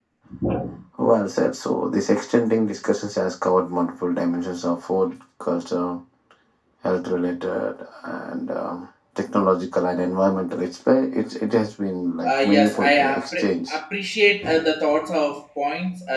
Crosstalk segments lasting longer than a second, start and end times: 12.2-13.8

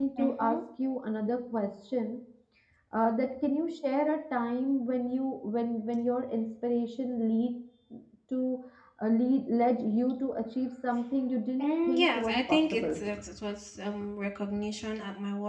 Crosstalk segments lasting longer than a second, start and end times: 11.6-13.0

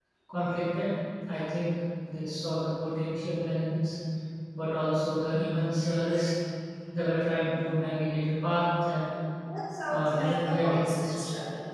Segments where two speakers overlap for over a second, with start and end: 9.9-11.1

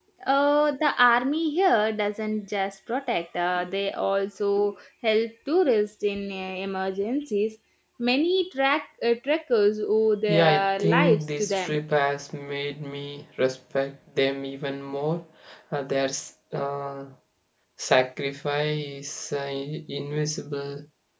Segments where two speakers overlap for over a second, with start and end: 10.3-11.8

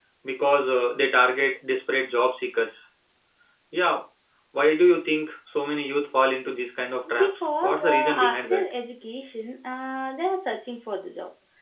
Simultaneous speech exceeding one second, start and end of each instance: 7.2-8.6

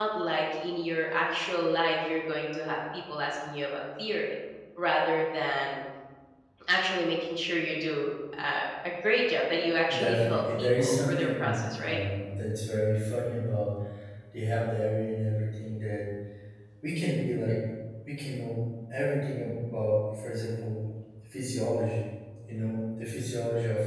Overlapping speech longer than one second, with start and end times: 9.9-12.0

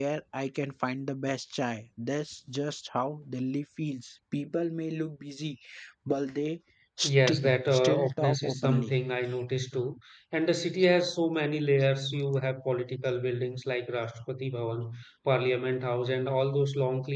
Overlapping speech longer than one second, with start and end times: 7.0-8.9

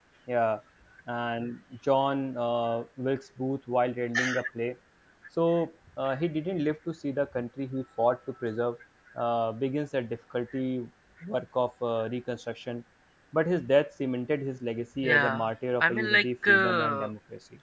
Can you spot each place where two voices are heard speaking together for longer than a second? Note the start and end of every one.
15.9-17.1

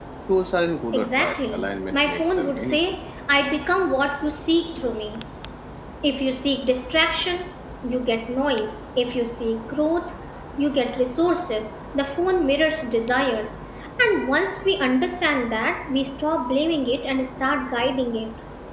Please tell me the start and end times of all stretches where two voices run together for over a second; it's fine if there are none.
0.9-3.0

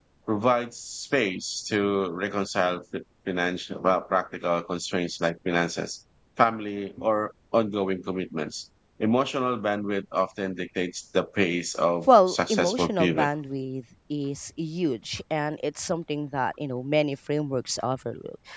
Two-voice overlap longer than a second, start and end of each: 12.1-13.3

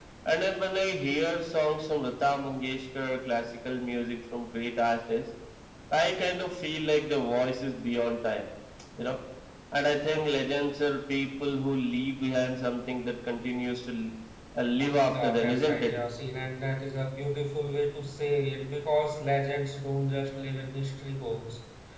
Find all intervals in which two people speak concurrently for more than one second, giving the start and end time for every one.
14.7-15.9

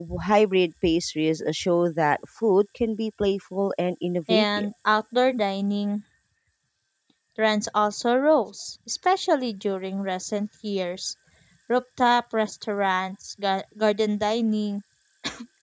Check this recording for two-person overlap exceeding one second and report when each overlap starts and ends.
none

